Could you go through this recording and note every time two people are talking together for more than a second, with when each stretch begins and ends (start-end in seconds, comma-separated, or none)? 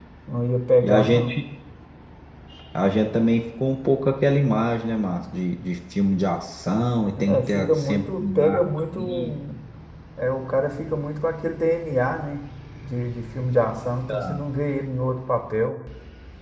7.2-9.3